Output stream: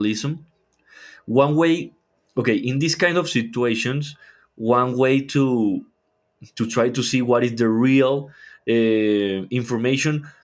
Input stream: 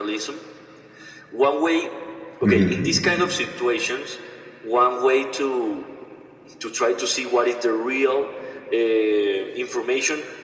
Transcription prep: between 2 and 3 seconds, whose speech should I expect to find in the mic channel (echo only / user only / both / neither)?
both